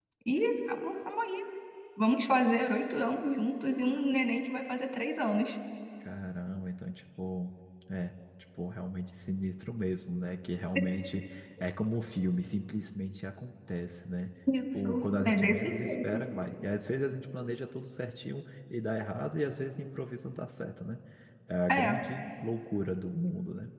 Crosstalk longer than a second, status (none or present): present